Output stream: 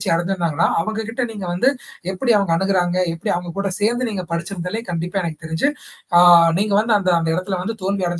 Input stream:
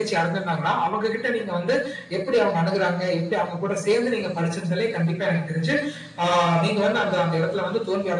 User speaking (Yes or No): No